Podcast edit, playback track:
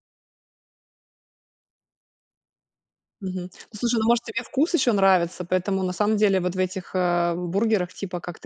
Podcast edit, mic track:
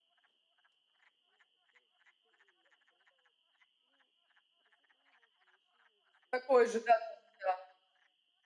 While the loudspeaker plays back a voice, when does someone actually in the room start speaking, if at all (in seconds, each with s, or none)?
6.3 s